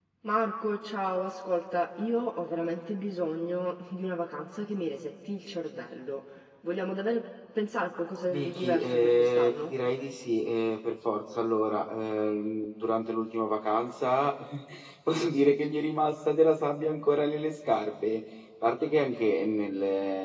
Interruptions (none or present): present